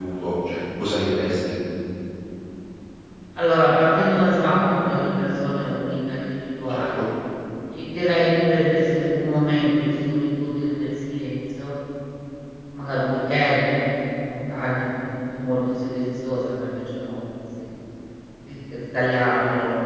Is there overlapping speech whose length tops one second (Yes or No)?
No